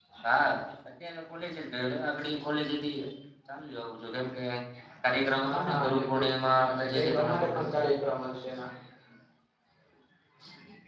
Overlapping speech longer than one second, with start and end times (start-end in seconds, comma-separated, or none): 5.4-7.8